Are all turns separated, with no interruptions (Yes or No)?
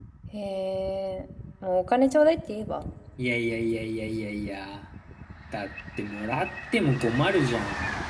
Yes